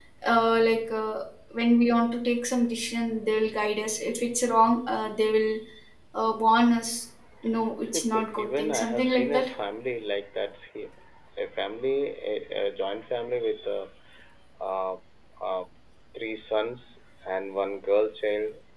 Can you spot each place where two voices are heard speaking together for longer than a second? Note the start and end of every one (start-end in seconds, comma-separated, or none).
7.8-9.5